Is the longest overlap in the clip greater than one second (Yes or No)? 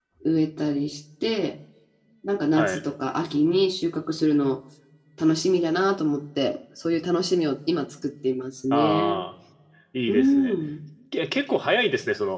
No